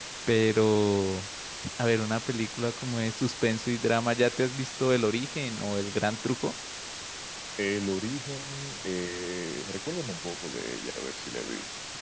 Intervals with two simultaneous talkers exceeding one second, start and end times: none

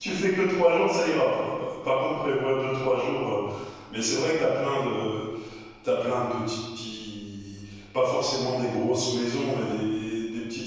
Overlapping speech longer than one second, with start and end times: none

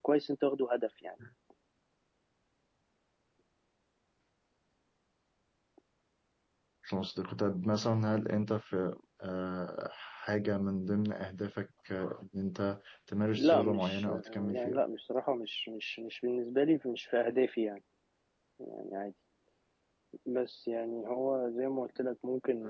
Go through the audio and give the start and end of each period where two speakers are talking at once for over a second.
13.4-14.8

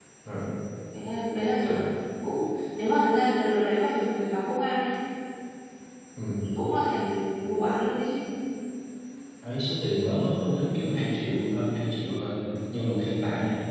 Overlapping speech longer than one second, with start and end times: none

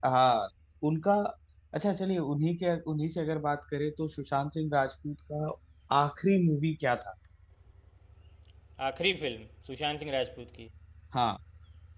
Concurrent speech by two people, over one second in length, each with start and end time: none

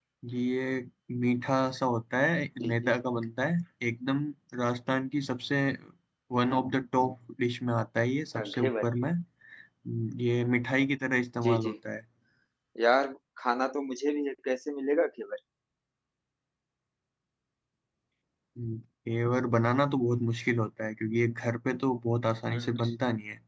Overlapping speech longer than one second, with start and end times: none

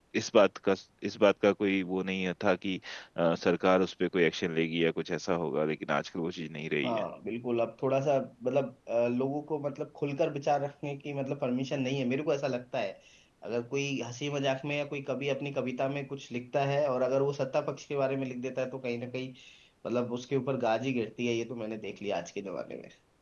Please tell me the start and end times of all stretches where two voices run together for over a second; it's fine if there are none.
none

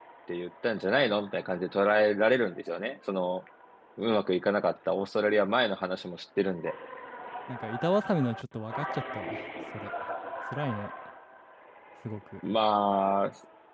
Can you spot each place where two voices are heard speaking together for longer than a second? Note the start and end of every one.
none

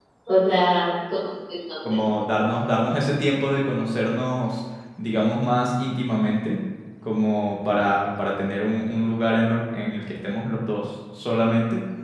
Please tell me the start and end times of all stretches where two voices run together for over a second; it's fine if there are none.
none

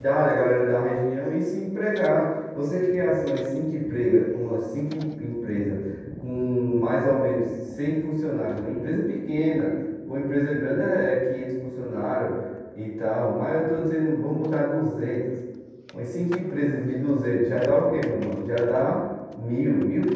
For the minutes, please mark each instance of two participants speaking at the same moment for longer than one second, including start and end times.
none

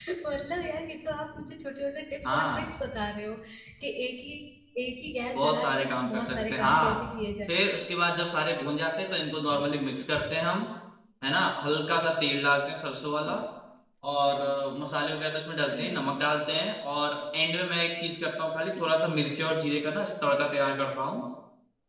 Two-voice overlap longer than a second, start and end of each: 5.3-7.0

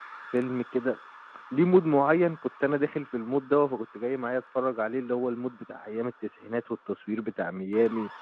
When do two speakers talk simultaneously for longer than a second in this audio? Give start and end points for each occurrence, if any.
none

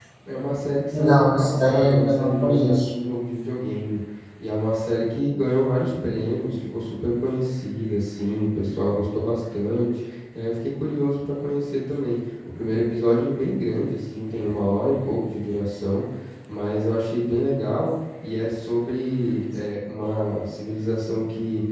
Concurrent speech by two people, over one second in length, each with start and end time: 0.9-2.9

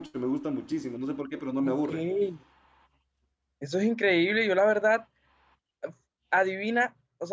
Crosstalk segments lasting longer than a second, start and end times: none

